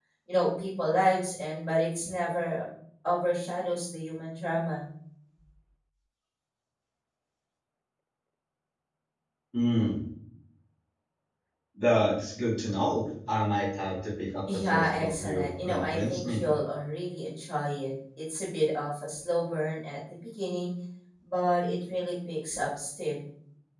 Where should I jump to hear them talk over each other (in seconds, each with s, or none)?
14.5 s